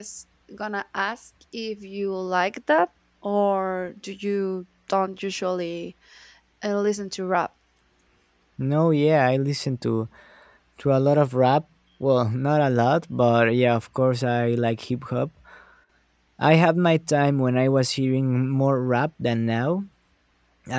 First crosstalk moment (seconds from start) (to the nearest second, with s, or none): none